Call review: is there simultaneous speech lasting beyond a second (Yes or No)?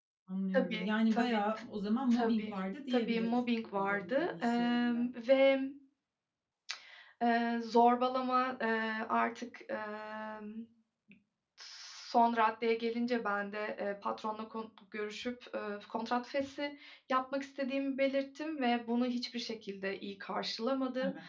Yes